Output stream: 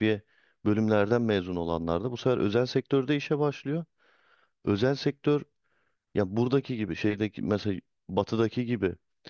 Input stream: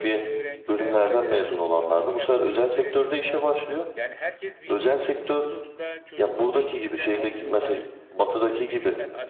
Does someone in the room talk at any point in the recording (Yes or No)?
Yes